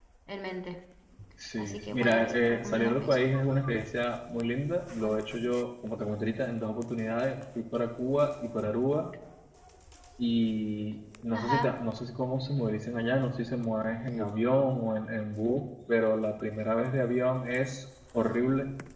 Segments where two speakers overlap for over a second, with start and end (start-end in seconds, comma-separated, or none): 1.6-3.2